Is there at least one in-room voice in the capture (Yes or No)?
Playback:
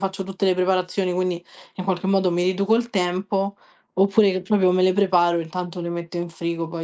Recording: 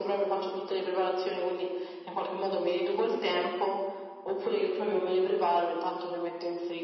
No